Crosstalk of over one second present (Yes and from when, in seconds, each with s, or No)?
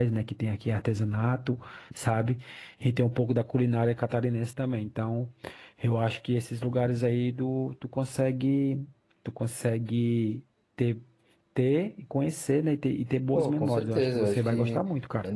Yes, from 13.3 s